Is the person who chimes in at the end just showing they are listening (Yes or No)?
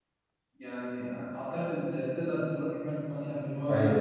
No